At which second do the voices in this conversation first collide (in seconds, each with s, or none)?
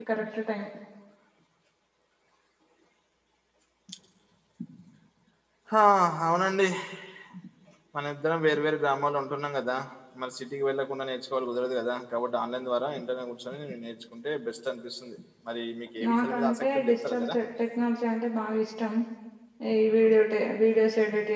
16.0 s